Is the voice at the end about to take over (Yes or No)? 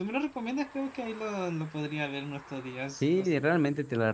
Yes